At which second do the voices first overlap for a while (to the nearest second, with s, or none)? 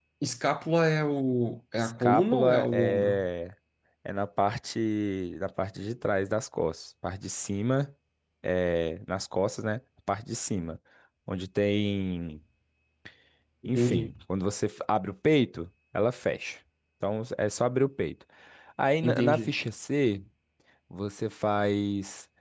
2 s